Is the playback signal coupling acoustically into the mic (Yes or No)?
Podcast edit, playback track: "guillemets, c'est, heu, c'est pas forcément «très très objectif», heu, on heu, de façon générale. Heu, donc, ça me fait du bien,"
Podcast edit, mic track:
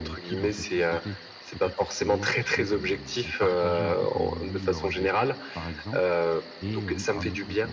Yes